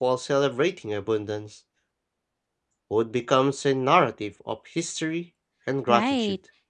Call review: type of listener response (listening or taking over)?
taking over